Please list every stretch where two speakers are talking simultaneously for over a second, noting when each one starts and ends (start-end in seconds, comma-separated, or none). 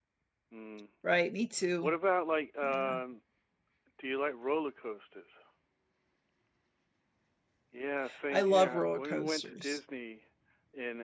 8.3-9.8